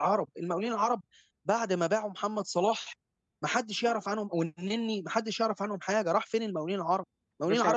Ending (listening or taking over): listening